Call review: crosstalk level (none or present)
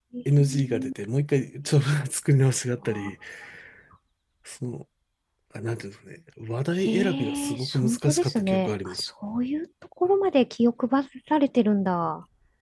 present